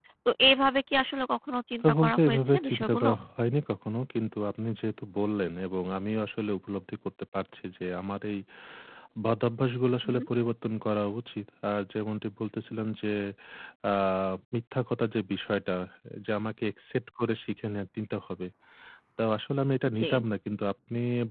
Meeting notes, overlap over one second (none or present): present